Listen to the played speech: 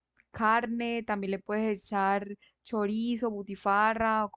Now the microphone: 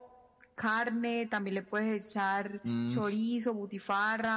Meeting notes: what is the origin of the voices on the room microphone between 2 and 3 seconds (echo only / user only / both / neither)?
both